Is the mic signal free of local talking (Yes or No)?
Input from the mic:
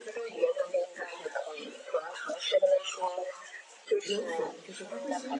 No